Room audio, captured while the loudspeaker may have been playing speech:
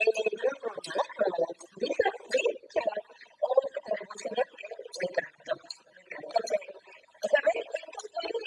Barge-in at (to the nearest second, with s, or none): none